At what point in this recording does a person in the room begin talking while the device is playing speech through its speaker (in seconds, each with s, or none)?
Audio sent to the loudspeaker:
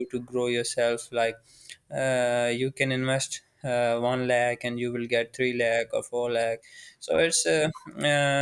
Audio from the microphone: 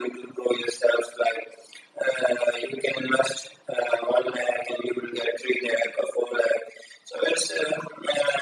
none